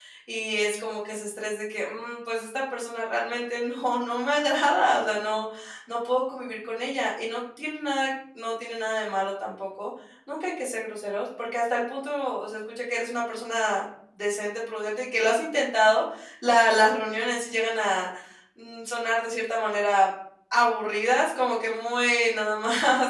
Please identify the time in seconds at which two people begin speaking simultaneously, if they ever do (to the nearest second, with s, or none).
none